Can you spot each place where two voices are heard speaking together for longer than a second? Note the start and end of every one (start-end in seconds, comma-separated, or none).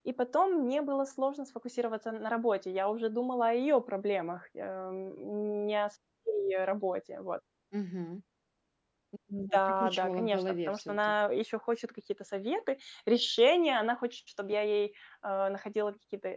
9.5-11.1